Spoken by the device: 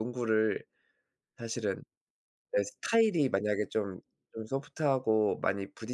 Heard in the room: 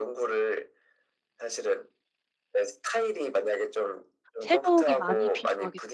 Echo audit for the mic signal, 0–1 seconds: echo only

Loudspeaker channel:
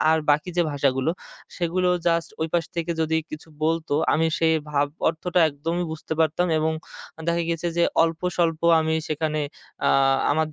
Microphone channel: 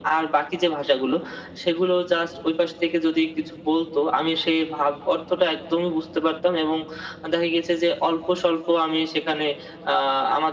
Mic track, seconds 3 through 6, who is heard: echo only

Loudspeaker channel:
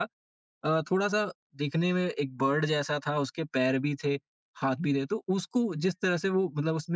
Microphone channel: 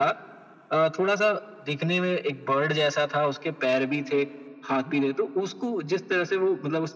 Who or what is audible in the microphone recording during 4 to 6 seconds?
echo only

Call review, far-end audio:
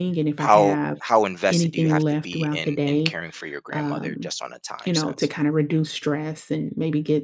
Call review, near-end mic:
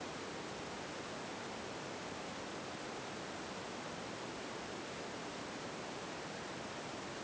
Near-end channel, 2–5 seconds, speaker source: neither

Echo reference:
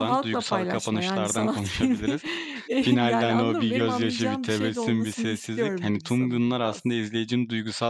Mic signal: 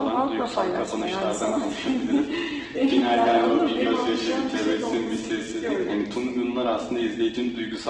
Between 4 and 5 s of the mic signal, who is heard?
echo only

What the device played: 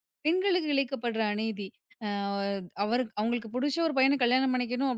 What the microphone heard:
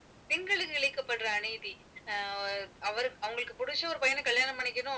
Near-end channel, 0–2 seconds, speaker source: echo only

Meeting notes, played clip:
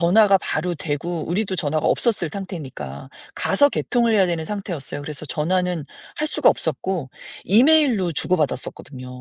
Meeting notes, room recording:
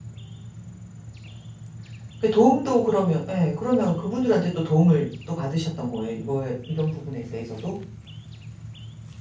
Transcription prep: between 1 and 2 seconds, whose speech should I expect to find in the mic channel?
neither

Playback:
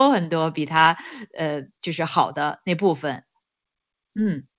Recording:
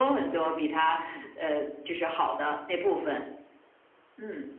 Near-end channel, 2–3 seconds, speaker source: echo only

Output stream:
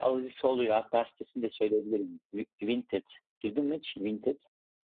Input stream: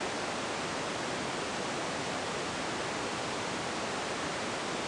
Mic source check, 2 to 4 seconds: neither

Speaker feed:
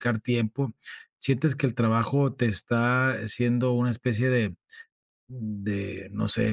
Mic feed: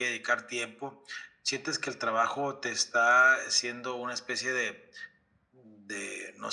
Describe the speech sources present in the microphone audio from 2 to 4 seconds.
echo only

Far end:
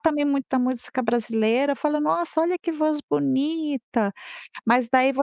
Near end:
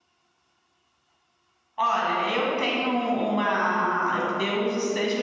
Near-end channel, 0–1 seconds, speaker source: neither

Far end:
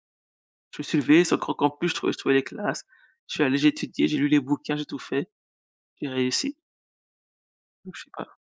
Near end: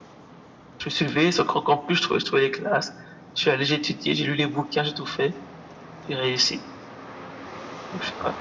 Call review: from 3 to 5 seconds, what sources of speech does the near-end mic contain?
echo only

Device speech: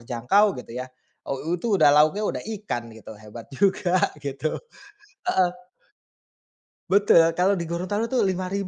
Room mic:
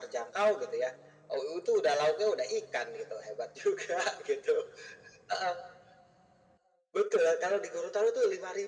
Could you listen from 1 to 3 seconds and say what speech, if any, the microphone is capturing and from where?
echo only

